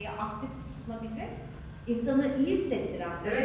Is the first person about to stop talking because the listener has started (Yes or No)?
Yes